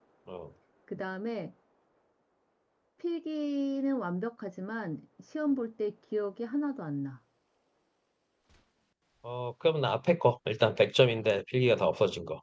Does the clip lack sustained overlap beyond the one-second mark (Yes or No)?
Yes